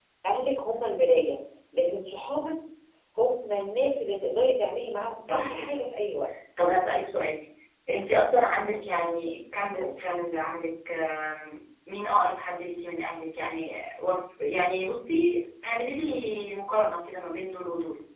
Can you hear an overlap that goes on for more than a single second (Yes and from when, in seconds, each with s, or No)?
No